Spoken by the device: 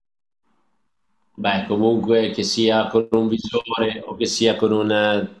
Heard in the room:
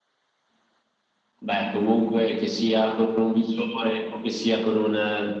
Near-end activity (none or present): none